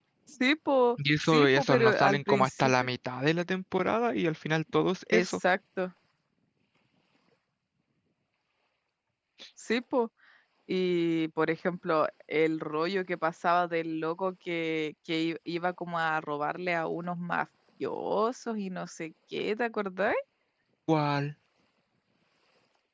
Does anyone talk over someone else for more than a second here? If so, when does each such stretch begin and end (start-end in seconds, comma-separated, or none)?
1.2-2.9